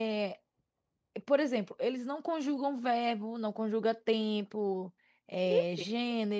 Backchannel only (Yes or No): Yes